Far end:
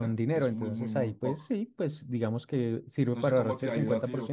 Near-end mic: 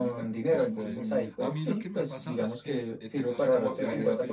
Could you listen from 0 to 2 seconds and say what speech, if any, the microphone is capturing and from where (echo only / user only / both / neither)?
both